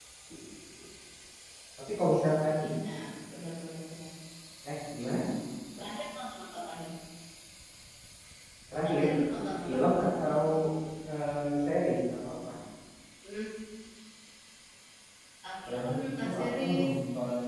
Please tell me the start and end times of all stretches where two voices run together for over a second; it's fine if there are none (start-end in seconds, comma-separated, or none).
15.7-16.9